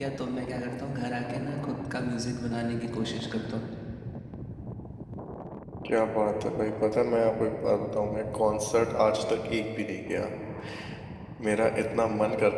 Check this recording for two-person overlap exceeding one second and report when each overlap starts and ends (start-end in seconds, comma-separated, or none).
none